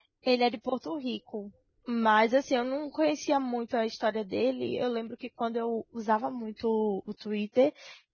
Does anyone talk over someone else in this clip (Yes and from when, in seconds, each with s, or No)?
No